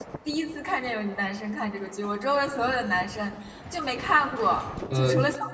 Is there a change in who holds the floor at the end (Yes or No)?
No